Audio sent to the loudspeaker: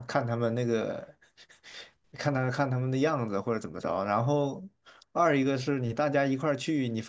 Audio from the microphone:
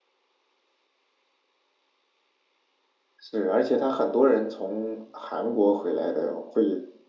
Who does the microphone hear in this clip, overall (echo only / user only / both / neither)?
user only